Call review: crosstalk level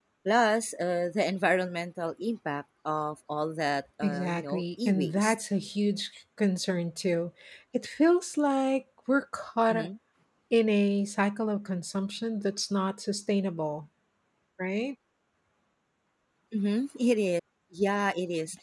present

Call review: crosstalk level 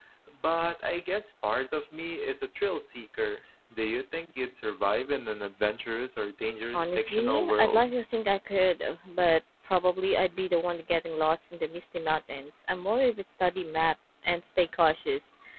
present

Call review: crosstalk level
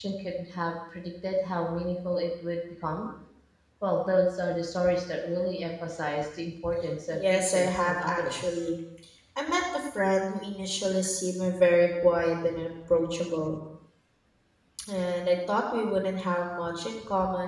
present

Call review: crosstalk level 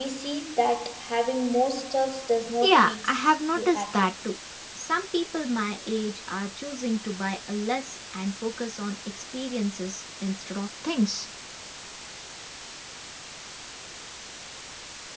present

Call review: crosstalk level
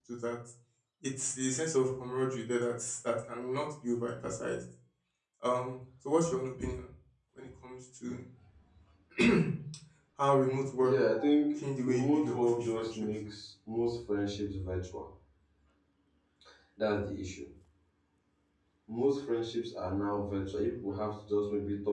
present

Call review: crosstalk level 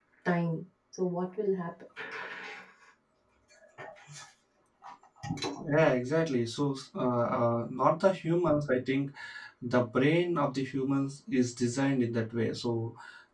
none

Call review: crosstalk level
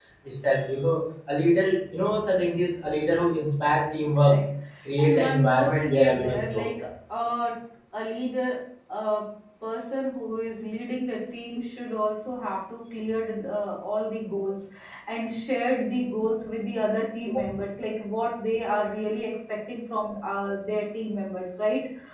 present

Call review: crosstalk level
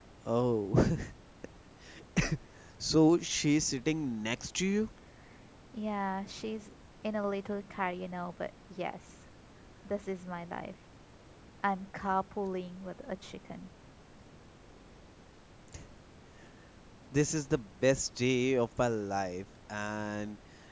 none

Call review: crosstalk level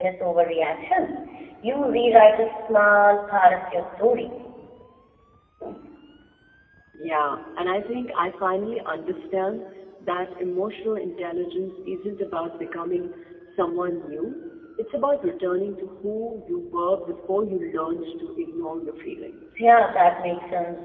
none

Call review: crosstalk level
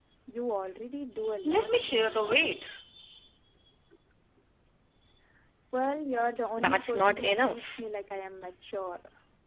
present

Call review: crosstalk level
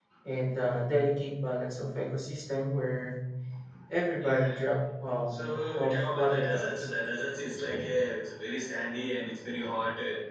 present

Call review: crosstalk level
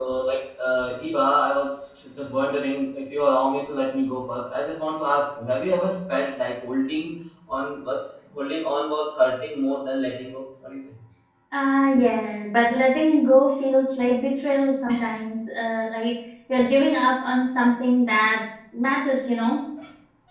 none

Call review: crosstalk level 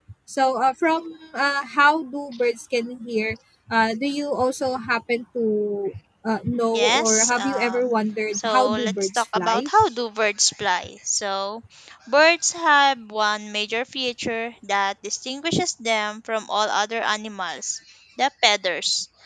present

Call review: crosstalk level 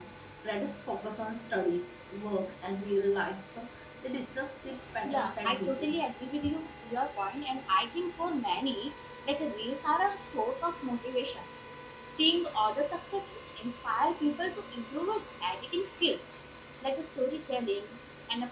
present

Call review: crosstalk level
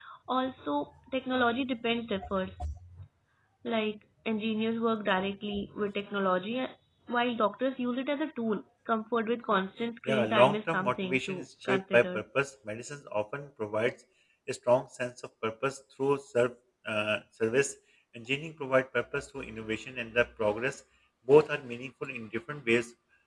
present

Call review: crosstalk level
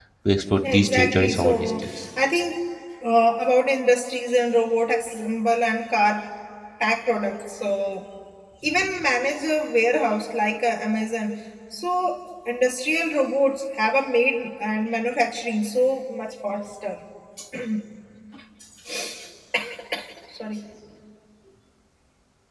present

